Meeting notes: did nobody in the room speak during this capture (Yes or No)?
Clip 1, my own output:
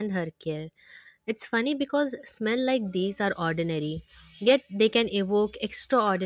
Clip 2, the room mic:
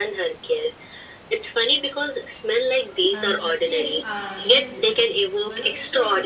No